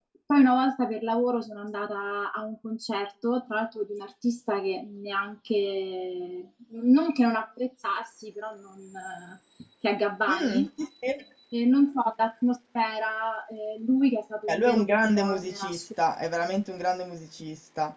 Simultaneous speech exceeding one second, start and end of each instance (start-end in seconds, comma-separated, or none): 14.5-15.8